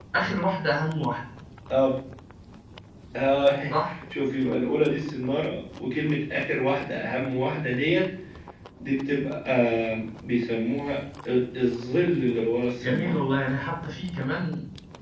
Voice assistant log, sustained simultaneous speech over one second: none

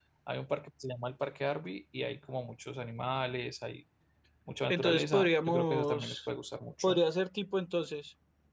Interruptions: present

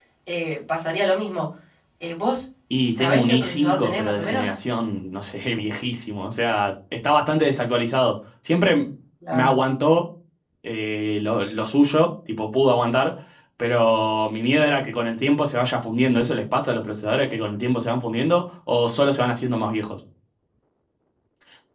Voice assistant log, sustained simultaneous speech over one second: present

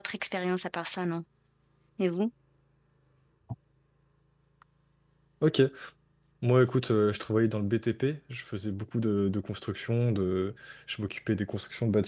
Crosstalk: none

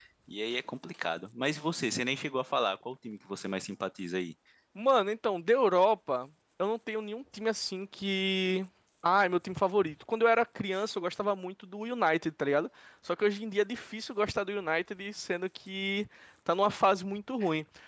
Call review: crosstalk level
none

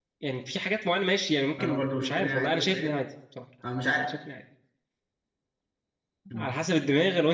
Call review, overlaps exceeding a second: present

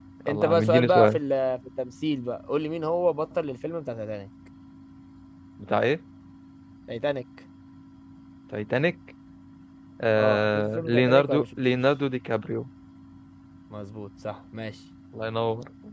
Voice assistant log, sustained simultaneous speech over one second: present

